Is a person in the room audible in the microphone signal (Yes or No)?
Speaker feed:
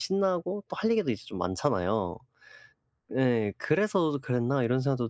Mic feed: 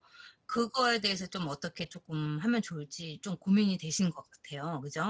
Yes